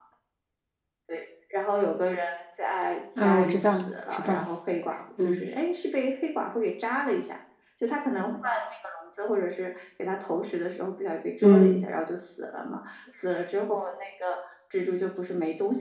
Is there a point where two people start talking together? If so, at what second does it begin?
3.2 s

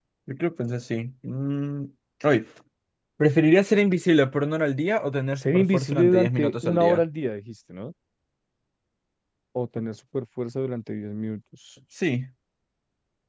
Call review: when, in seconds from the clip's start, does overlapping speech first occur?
5.4 s

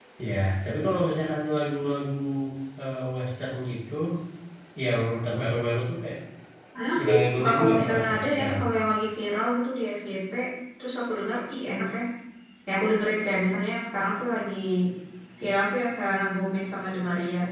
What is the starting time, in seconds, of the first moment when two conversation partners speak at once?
7.0 s

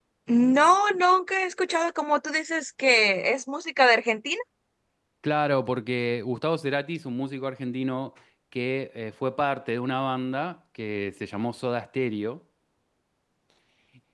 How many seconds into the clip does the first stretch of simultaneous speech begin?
none

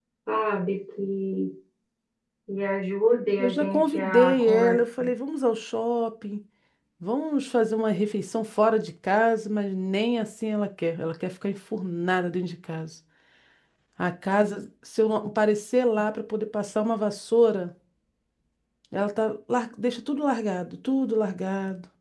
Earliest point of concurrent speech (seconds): 3.4 s

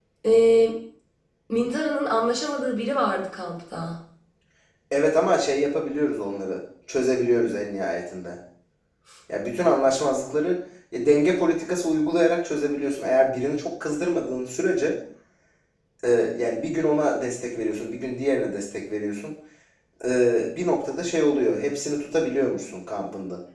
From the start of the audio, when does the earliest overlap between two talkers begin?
none

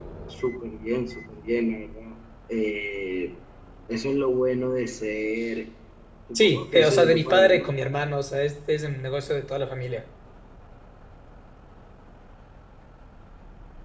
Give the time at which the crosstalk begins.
6.3 s

